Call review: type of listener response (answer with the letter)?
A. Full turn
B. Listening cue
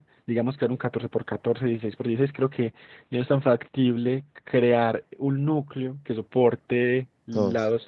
B